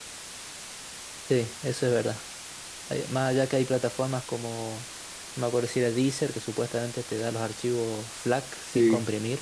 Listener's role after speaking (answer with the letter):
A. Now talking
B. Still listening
A